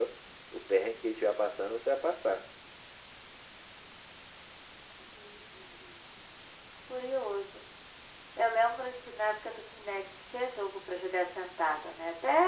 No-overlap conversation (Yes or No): Yes